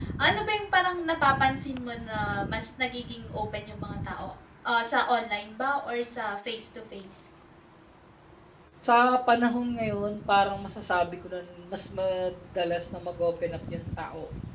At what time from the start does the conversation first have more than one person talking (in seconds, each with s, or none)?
none